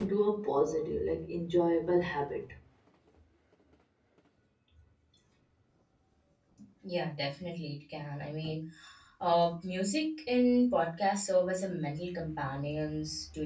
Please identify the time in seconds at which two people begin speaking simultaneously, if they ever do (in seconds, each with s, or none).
none